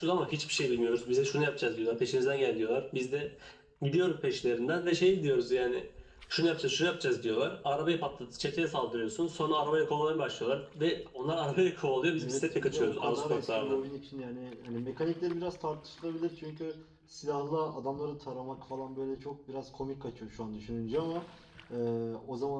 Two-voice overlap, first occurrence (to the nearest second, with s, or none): 12 s